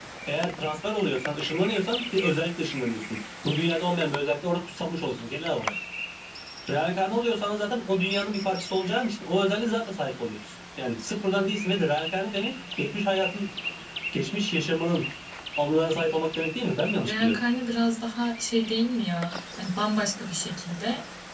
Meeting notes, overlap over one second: none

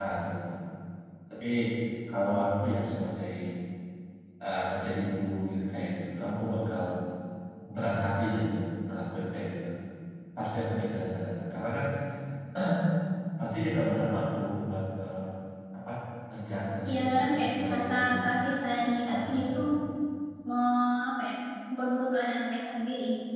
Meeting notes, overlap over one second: present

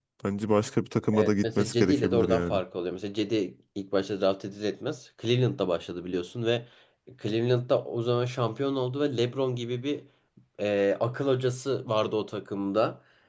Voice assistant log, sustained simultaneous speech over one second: present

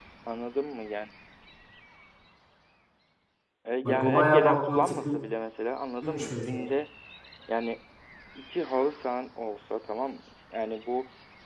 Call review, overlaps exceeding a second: present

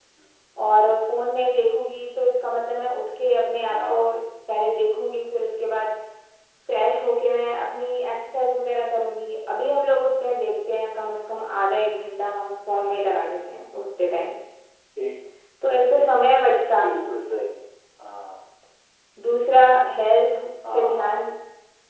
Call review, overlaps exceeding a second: none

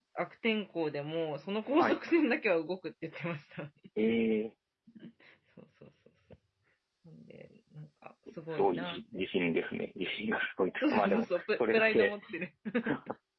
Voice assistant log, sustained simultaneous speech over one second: present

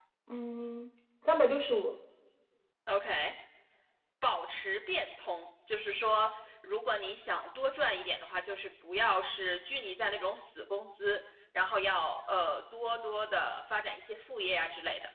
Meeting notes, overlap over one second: none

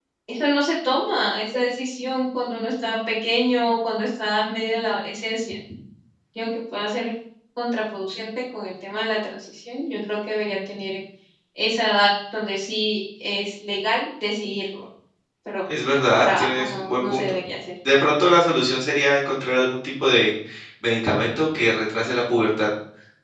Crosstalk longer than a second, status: present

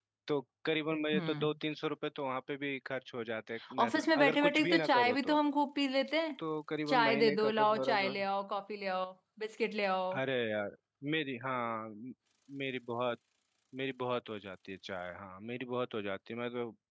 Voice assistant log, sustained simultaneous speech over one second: present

